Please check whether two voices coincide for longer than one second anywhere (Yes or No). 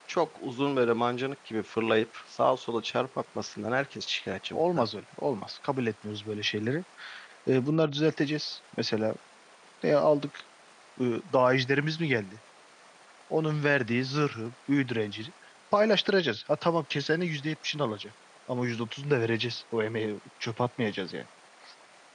No